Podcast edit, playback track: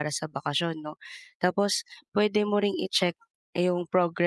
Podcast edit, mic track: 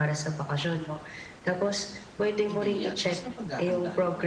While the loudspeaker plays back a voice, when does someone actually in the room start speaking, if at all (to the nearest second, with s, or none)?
2 s